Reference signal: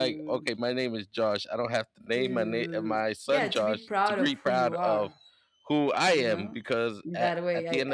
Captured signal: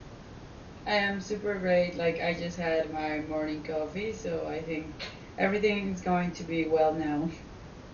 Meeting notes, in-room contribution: present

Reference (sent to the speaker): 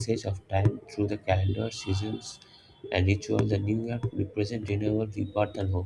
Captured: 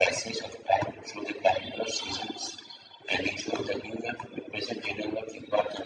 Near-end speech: none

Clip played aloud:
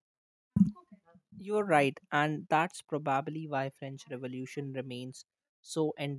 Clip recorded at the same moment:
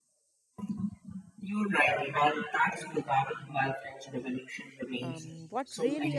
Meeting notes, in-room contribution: present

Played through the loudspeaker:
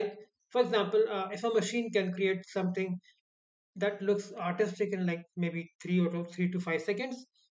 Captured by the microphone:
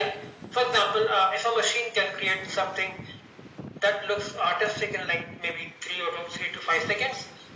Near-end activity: none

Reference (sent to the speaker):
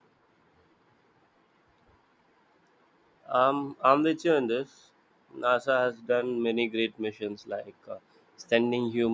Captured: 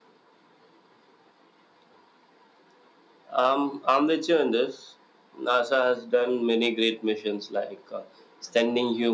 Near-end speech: none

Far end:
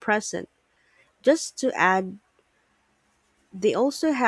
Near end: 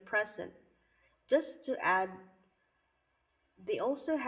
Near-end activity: none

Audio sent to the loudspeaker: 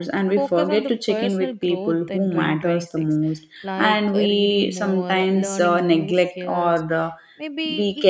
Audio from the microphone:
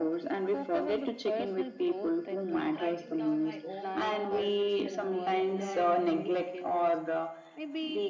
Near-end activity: present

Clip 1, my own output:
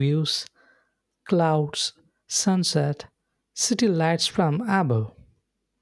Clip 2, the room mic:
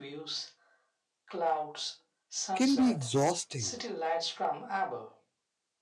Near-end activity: present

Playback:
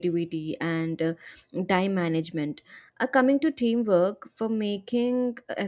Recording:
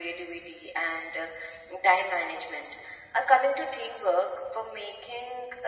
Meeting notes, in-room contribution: none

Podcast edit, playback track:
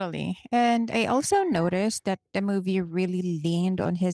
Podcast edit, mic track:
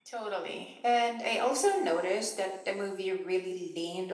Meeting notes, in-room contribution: none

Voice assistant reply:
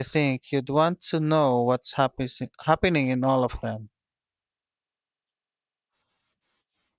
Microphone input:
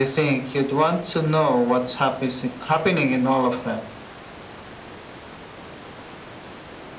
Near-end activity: none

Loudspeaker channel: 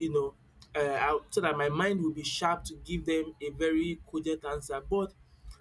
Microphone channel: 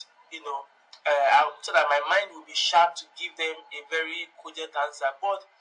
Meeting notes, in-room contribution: none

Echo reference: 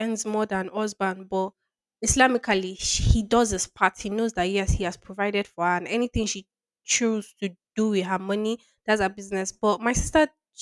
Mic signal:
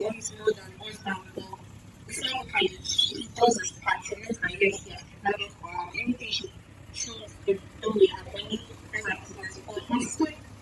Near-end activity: none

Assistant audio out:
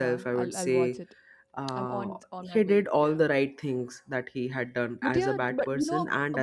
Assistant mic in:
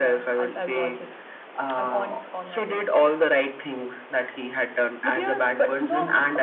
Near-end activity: none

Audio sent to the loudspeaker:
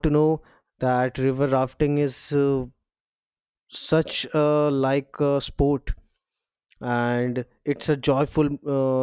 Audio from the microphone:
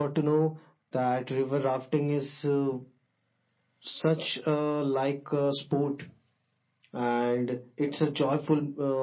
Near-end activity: none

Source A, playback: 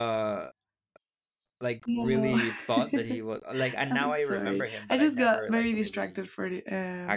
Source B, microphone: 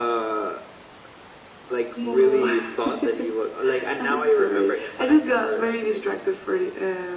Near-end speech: none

